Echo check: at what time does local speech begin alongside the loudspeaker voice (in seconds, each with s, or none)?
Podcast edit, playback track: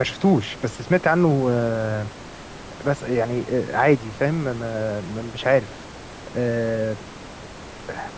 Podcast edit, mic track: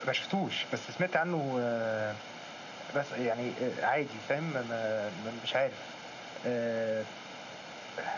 none